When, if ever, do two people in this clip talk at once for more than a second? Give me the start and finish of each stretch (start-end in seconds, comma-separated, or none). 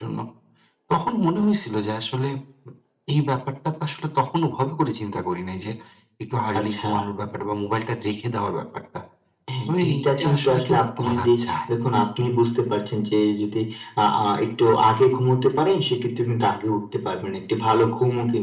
9.9-11.3